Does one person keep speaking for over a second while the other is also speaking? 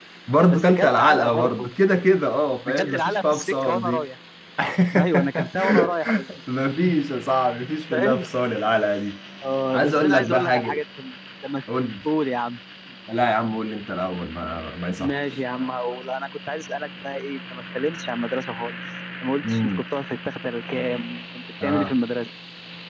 Yes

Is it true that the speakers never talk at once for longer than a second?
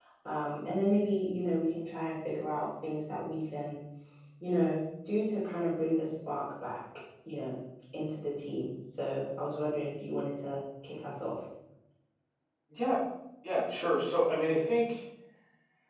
Yes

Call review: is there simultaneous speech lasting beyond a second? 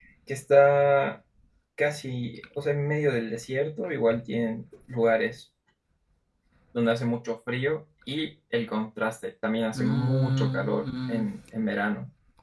Yes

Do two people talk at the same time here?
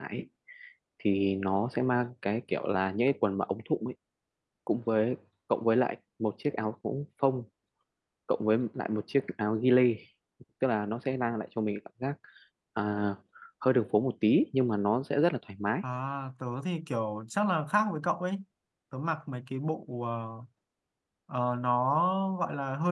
No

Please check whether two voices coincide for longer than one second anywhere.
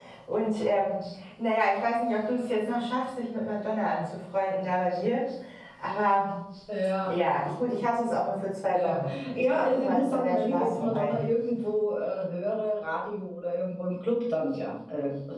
Yes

